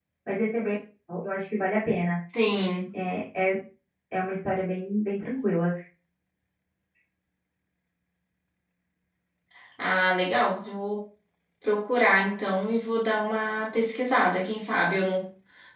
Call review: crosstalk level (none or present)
none